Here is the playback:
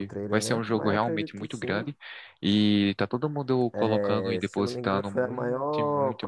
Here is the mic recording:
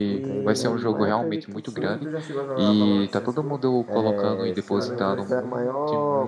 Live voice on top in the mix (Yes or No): No